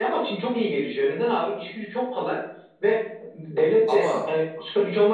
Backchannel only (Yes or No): Yes